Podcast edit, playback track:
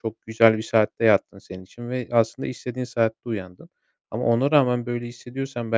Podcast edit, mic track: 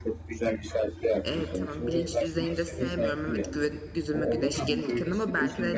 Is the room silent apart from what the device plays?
No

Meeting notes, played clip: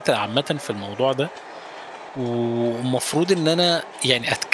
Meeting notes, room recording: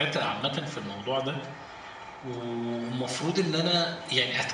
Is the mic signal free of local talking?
Yes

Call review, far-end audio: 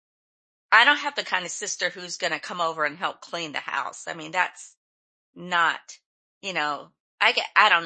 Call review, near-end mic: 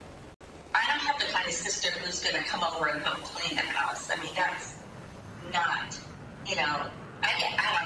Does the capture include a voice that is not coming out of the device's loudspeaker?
No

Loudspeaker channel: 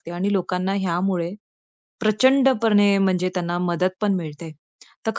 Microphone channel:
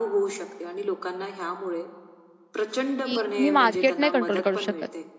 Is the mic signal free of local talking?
No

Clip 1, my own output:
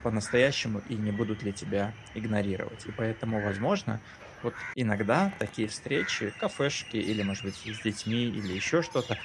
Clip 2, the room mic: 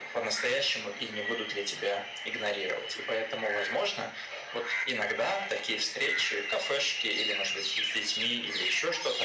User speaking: No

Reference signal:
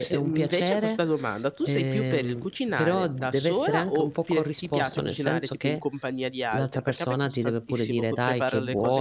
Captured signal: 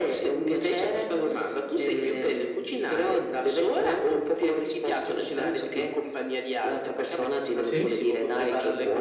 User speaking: Yes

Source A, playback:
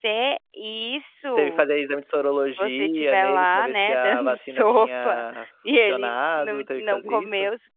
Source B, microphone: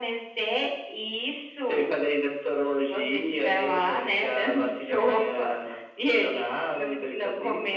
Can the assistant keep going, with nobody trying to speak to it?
Yes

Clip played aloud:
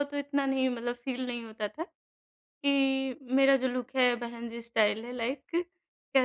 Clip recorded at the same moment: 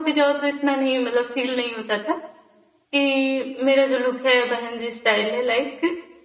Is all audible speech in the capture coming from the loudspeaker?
Yes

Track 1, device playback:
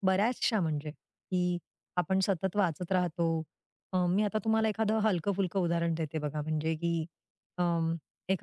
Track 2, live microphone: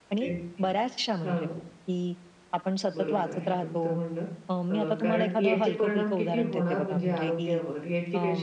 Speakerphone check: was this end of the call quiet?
No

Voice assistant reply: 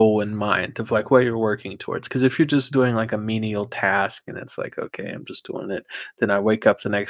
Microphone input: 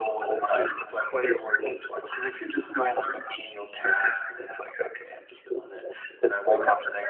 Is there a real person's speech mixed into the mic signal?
No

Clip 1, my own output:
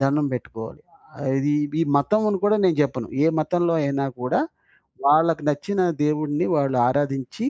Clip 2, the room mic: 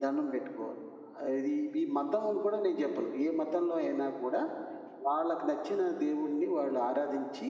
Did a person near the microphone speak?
No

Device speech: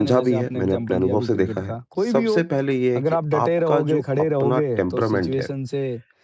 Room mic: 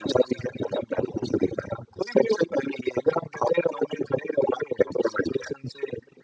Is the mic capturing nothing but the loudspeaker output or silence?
Yes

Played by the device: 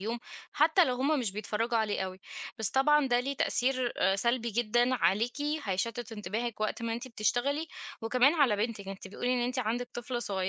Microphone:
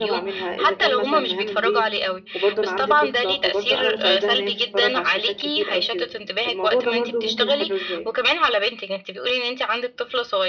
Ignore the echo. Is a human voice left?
Yes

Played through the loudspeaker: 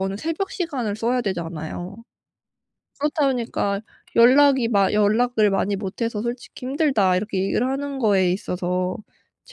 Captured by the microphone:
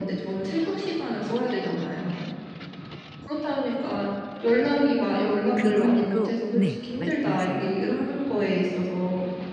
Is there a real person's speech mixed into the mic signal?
Yes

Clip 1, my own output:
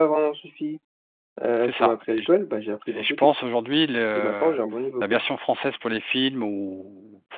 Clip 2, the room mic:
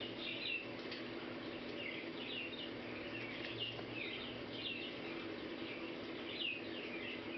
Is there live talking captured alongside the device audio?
No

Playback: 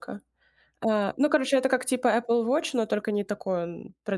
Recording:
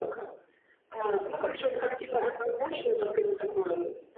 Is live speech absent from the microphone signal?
Yes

